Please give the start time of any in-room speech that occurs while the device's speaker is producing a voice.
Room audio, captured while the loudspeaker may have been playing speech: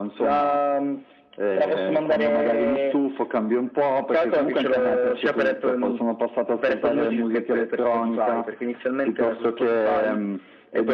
none

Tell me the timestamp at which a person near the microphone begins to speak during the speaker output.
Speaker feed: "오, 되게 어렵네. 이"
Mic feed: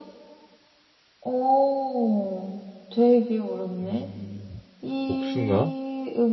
4 s

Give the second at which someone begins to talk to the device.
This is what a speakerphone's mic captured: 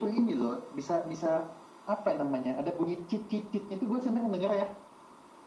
none

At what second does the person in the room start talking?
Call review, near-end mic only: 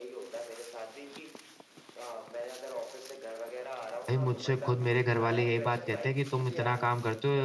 4 s

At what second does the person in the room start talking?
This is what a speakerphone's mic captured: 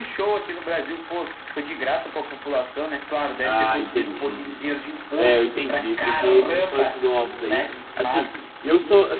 3 s

